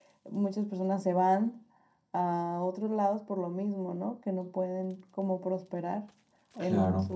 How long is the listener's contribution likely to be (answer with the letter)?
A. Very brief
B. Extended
B